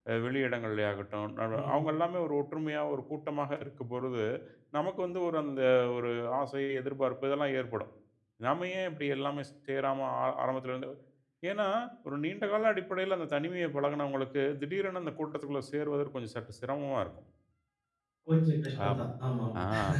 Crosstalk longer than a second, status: none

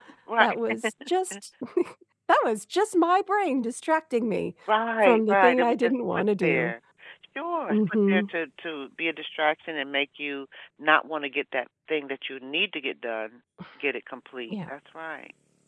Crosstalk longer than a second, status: present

